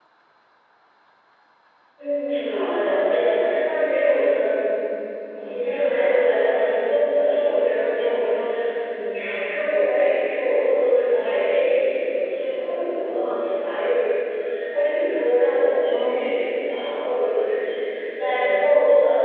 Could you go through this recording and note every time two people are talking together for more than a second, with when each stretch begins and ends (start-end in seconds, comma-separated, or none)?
2.3-3.6